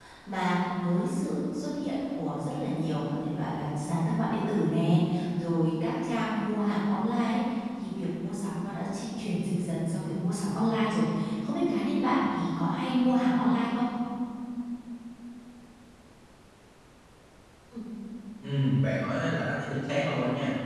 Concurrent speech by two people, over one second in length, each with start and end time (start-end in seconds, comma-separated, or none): none